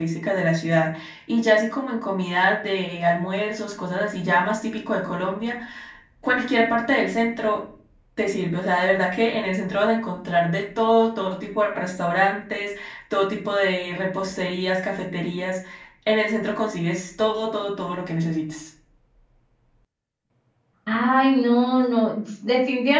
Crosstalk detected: No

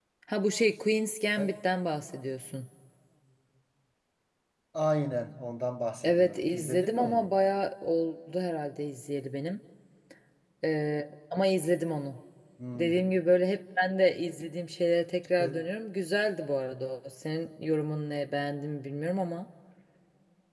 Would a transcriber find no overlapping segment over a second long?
No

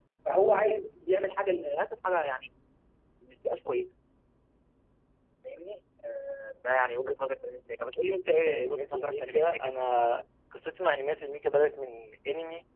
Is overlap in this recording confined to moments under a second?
No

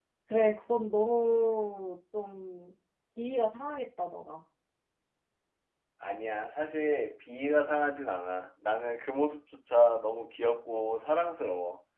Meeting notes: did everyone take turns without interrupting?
Yes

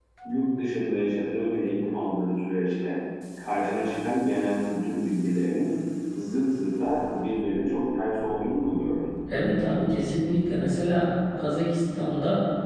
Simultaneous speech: No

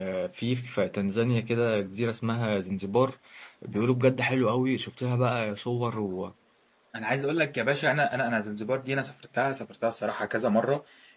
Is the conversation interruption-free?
Yes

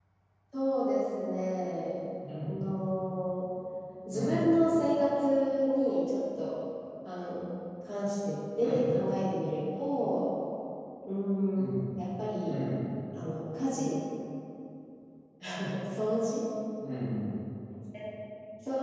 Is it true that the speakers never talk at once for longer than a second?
Yes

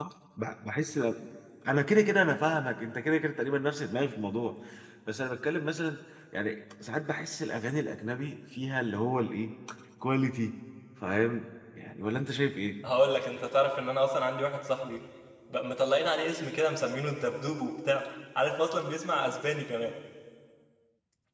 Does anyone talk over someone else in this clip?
No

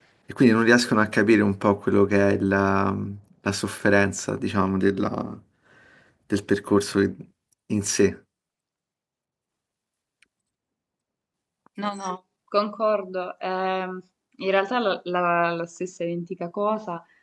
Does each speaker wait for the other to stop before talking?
Yes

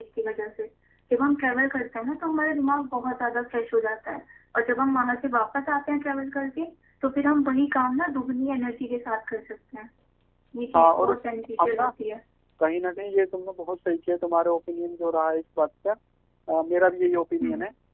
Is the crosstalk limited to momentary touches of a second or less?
Yes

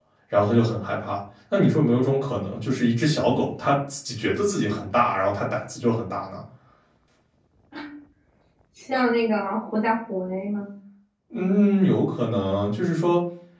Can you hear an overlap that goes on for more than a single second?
No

